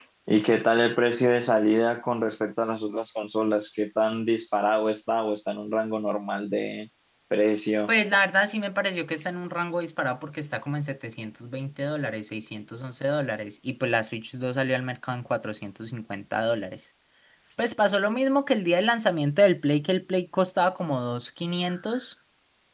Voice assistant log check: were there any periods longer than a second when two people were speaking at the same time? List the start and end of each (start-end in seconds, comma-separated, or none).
none